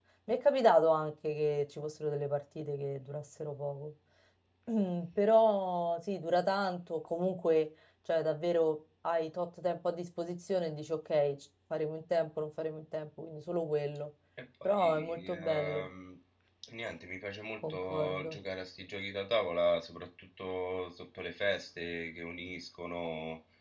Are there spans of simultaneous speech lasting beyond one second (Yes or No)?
Yes